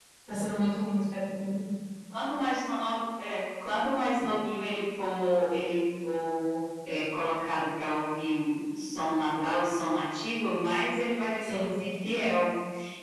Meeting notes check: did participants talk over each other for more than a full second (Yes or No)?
No